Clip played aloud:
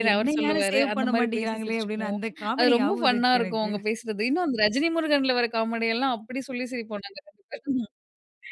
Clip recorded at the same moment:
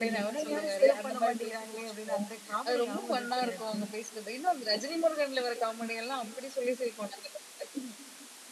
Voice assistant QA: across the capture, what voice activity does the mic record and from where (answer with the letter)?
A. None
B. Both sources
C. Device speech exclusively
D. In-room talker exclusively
C